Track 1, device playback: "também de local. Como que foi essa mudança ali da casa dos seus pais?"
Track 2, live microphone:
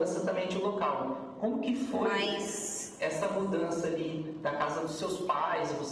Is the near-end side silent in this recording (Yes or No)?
No